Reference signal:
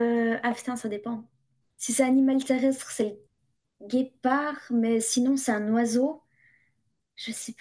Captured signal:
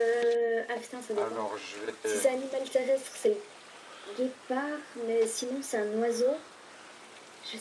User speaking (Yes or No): Yes